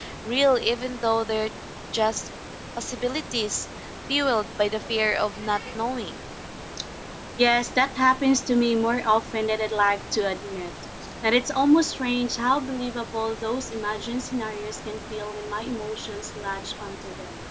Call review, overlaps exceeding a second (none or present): none